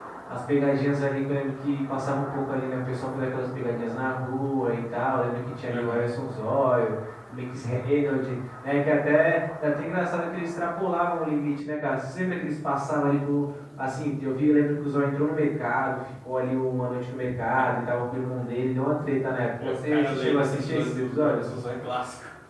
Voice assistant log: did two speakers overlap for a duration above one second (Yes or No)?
Yes